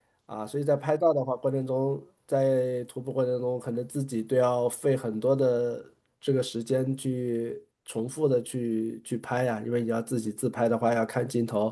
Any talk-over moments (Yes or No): No